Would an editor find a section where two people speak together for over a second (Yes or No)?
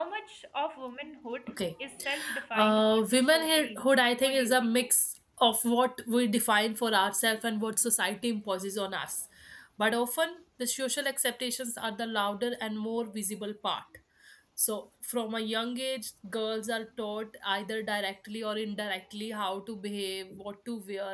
Yes